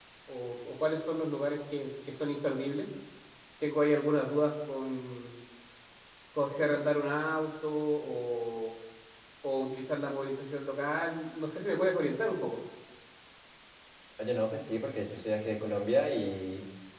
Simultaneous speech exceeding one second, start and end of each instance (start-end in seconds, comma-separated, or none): none